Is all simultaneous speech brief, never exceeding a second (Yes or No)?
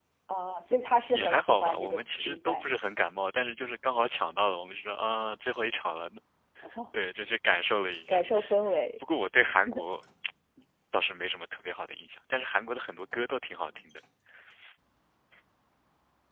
No